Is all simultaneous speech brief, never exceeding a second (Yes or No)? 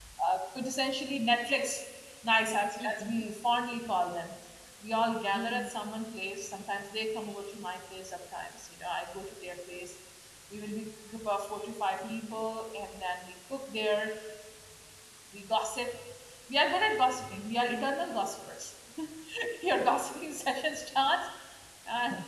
Yes